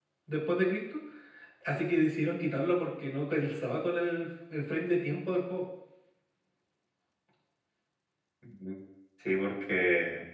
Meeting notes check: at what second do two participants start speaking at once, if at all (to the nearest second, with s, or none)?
none